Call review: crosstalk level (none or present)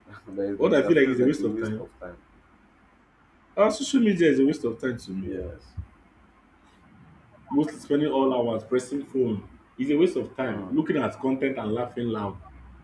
present